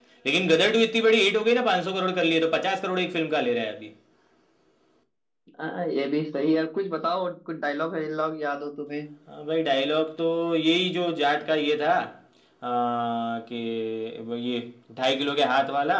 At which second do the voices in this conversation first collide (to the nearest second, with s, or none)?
none